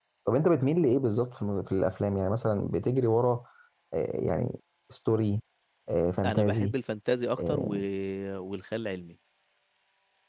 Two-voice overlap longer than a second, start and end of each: none

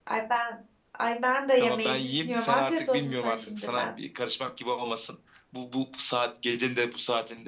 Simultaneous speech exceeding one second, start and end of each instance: 1.6-3.9

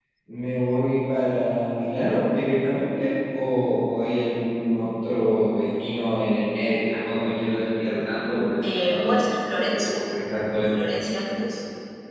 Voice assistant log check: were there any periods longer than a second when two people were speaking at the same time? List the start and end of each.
8.6-9.9

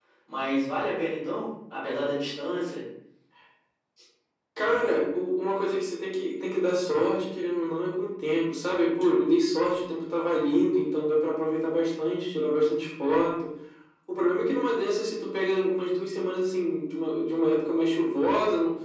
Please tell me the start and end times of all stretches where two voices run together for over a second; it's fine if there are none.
none

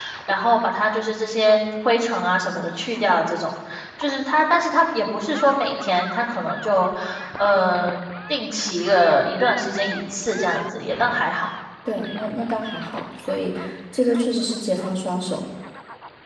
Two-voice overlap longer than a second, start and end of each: none

